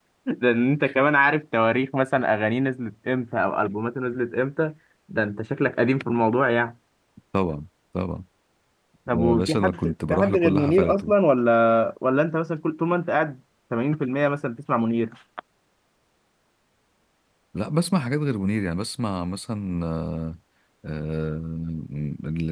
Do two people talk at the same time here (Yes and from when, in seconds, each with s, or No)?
Yes, from 9.1 s